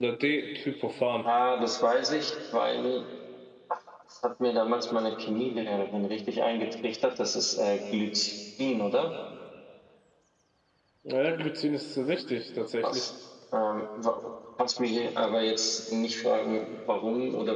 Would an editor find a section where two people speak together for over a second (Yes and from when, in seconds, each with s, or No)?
No